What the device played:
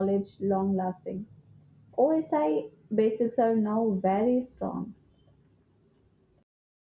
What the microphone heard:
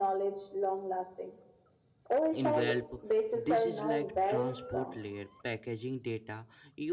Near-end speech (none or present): present